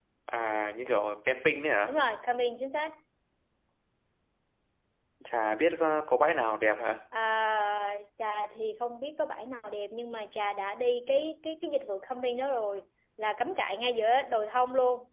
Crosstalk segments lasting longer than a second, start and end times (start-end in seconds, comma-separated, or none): none